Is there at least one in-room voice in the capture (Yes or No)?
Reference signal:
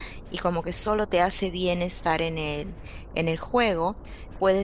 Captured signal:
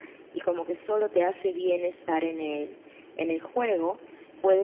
No